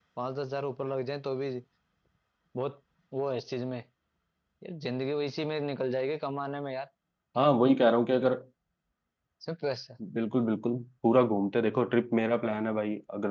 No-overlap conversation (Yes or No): Yes